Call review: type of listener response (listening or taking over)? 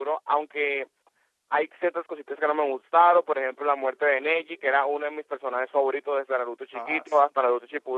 listening